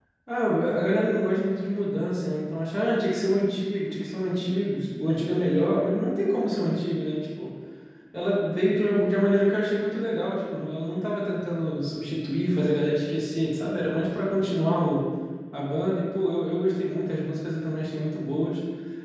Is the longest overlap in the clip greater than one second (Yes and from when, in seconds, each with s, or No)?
No